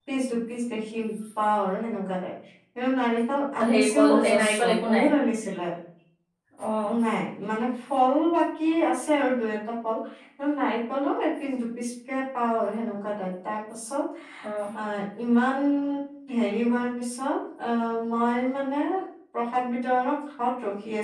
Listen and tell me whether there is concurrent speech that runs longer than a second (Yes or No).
Yes